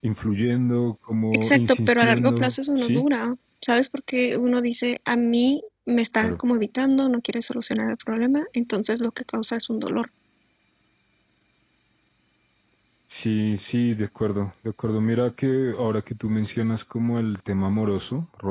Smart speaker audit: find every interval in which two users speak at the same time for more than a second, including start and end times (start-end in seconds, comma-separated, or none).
1.4-3.0